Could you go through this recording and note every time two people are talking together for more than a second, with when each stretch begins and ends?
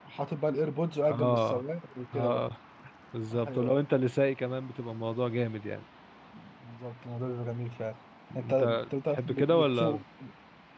8.4-10.0

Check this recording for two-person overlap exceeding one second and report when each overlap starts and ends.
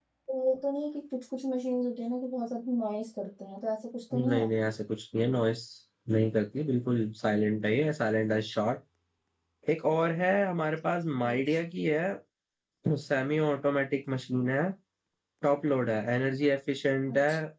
none

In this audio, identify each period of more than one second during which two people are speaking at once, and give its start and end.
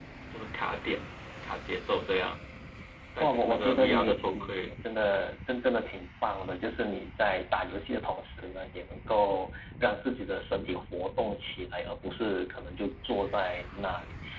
3.2-4.5

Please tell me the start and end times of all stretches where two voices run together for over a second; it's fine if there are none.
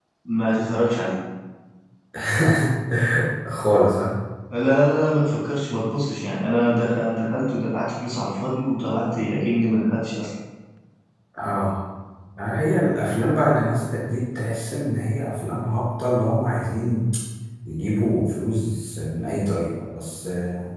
none

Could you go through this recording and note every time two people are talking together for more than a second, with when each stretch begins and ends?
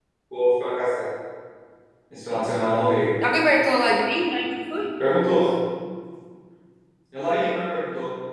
none

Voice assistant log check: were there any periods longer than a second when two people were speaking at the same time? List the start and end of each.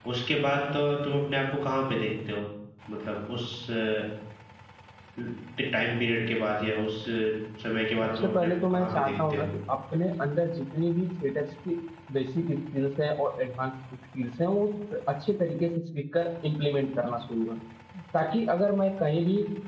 8.0-9.5

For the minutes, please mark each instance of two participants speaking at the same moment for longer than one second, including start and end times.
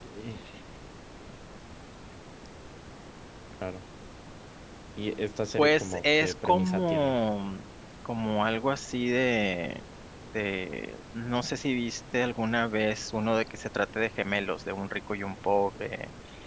5.6-7.1

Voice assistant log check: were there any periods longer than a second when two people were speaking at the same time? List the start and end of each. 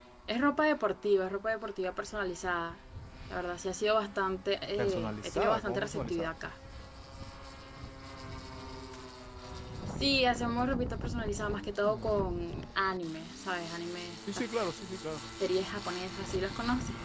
4.8-6.3

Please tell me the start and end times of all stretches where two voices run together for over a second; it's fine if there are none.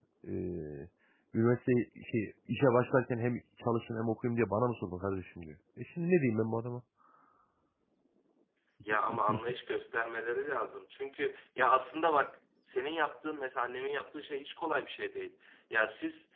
none

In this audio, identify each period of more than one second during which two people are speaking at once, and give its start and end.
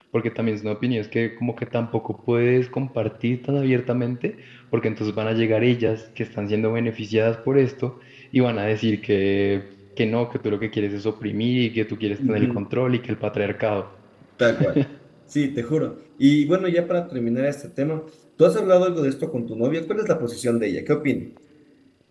none

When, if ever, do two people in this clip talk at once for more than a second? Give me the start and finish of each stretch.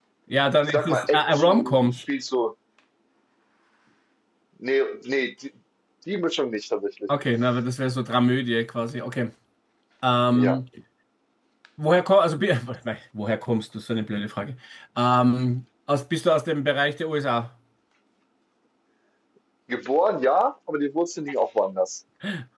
0.6-2.0

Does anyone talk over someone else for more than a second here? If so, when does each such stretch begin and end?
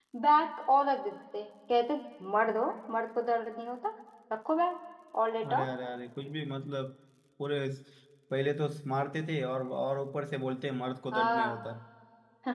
none

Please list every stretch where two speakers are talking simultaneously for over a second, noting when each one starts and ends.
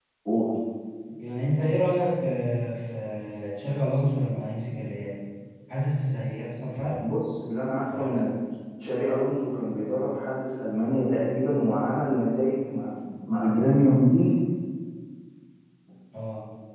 none

